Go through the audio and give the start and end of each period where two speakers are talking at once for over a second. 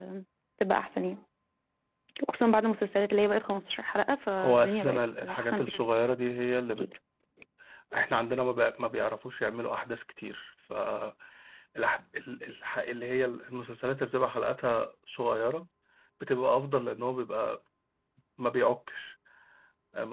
4.4-5.6

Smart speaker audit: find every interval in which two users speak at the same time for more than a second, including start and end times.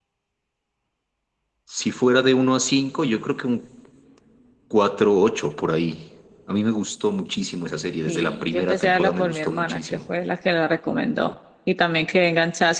8.1-10.0

